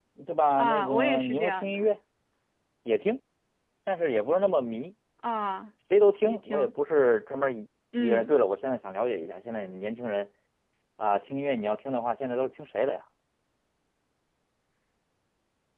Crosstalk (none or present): present